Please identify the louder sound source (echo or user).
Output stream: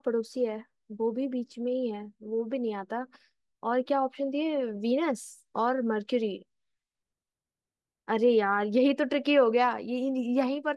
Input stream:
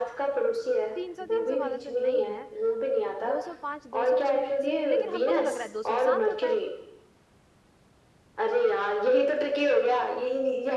echo